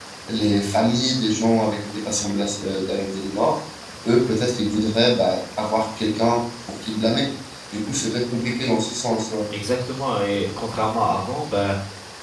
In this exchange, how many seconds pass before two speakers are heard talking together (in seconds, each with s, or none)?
none